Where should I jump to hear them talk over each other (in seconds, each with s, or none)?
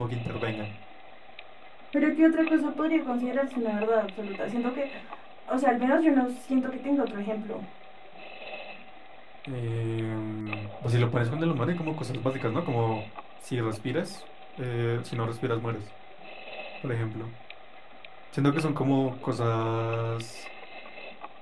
none